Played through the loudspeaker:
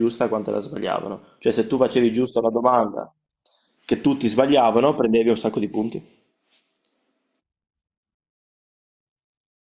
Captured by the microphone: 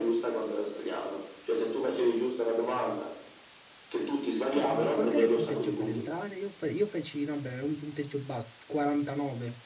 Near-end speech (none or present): present